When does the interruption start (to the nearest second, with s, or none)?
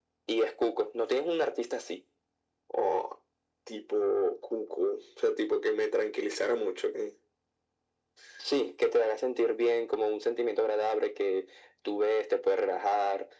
none